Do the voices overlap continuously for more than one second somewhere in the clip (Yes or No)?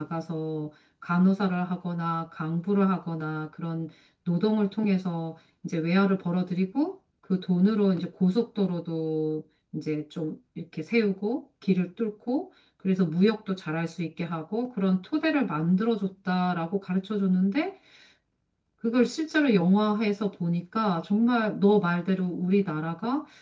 No